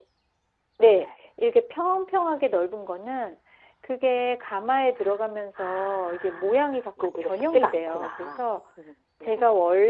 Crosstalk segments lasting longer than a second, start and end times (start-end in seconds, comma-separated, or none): 5.6-8.4